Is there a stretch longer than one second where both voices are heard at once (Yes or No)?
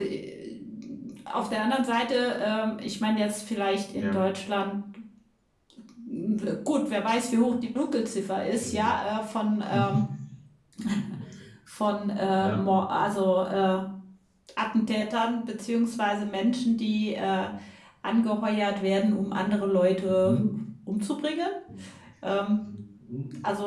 No